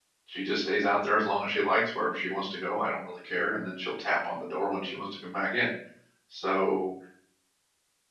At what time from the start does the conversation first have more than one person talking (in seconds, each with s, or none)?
none